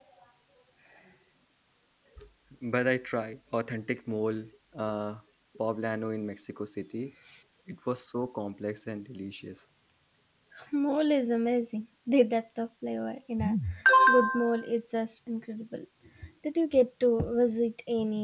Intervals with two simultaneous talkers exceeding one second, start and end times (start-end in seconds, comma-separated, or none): none